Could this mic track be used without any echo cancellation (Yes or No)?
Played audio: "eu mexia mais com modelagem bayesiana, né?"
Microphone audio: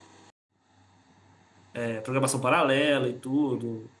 Yes